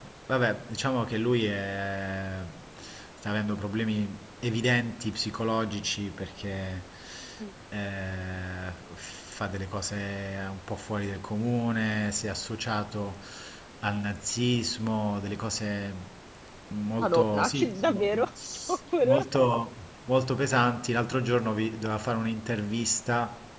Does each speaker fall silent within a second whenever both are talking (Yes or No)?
No